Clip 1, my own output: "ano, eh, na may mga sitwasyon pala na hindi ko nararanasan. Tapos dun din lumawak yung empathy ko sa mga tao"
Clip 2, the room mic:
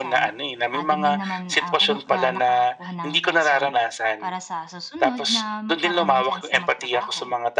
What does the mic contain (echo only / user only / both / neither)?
both